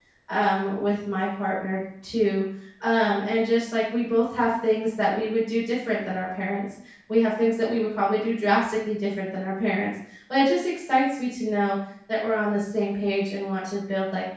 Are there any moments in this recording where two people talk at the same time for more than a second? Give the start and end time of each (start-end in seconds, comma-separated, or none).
none